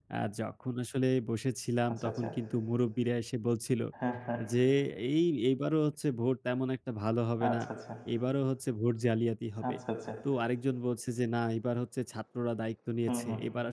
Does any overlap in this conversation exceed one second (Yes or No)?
No